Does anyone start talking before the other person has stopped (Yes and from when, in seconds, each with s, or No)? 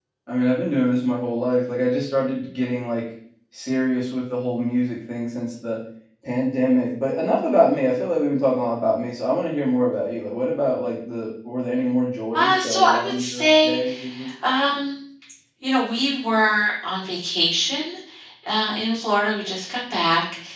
Yes, from 12.3 s